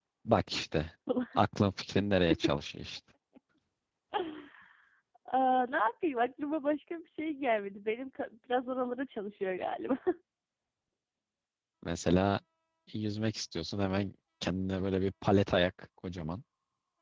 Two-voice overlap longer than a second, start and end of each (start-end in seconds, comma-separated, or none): none